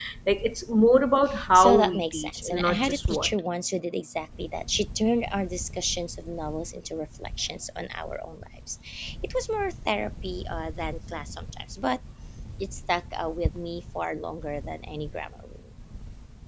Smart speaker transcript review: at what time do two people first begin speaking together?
2 s

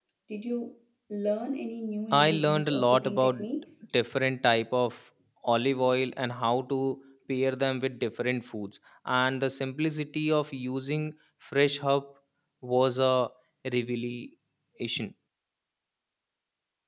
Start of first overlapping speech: 2 s

